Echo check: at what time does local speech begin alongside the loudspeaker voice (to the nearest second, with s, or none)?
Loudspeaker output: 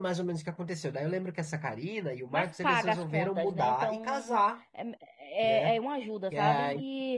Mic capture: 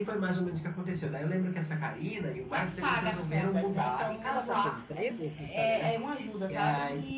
4 s